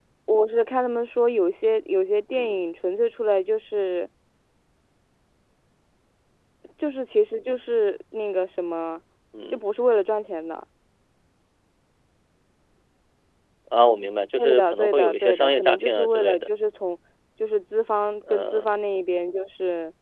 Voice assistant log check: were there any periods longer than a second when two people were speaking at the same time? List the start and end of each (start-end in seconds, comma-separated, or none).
14.4-16.5